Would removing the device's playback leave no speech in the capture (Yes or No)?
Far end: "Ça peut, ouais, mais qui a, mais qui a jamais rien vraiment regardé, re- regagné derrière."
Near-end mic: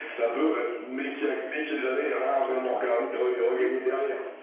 No